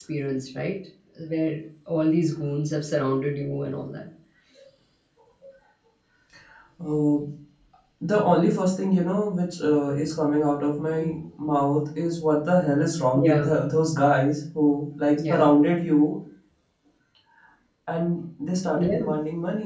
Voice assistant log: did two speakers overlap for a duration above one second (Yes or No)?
No